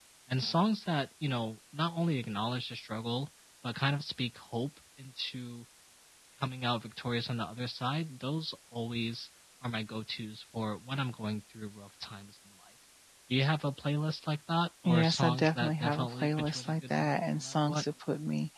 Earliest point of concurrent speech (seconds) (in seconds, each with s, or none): 14.8 s